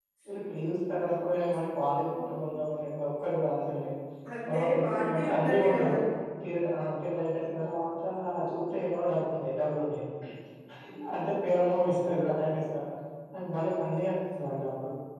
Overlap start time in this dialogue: 4 s

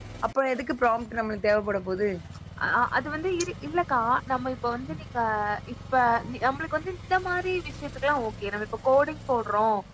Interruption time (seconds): none

